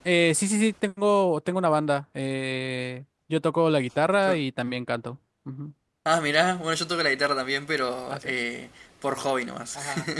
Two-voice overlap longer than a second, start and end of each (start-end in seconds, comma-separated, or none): none